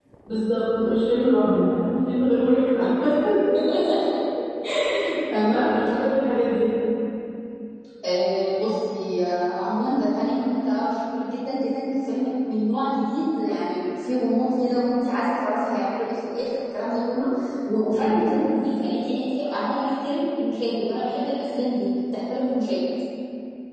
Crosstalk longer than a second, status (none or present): none